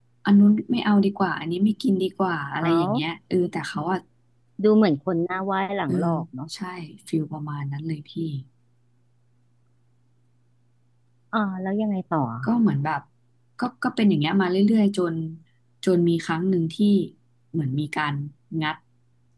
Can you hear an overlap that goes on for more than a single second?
No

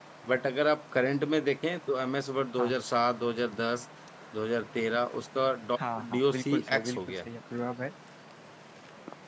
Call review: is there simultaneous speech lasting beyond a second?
Yes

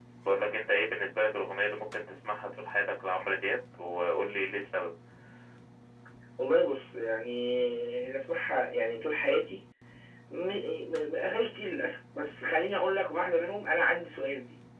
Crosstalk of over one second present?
No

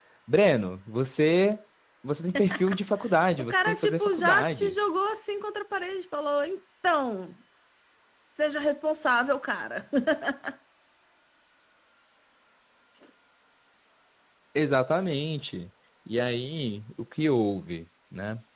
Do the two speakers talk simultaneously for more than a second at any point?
Yes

